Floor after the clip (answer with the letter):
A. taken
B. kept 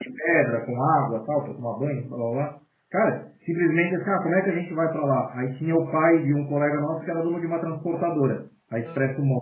B